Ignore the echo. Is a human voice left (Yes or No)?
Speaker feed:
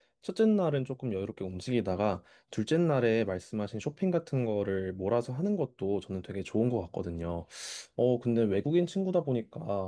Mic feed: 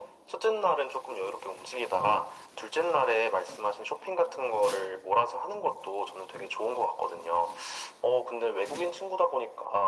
No